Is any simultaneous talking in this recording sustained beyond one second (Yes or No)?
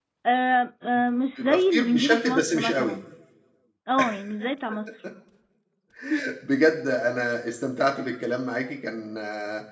Yes